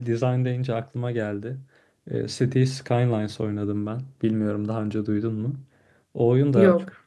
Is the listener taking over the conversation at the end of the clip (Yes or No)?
No